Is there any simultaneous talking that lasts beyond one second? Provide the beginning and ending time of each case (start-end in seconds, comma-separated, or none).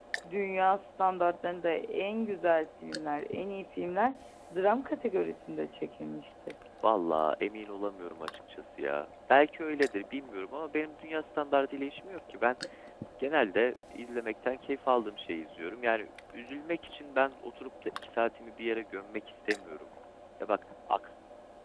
none